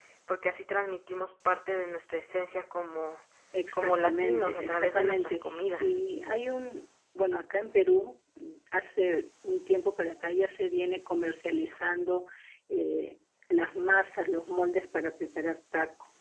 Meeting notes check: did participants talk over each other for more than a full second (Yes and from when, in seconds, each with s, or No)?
Yes, from 3.7 s